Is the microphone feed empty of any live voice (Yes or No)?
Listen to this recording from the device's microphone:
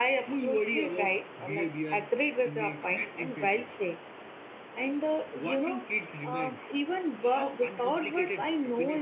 Yes